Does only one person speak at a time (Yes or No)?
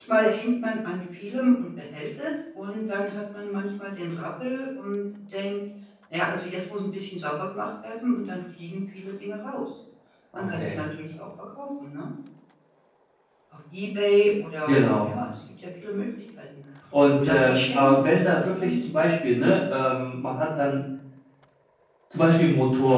No